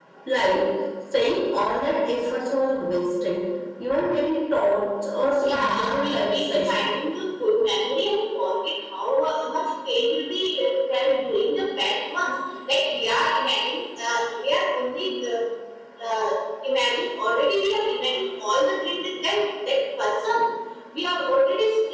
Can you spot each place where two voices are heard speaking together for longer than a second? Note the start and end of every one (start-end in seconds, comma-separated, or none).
5.4-6.9